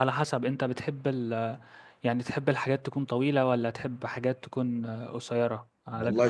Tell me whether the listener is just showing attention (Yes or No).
No